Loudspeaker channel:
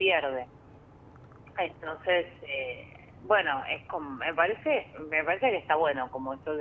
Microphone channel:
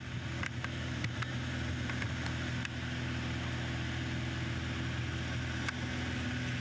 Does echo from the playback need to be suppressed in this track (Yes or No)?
No